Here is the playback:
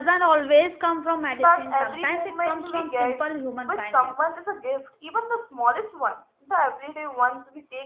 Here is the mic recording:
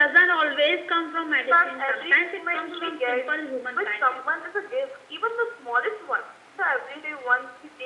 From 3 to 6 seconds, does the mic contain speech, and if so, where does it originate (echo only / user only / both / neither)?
echo only